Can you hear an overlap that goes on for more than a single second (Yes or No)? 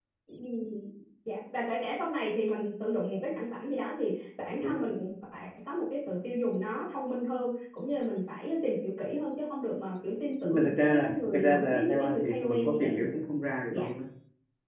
Yes